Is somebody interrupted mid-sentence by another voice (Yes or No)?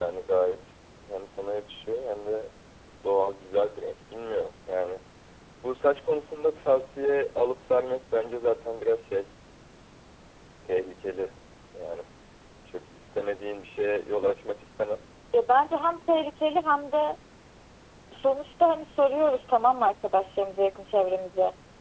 No